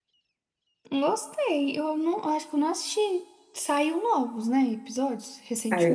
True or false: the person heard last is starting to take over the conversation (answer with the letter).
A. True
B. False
A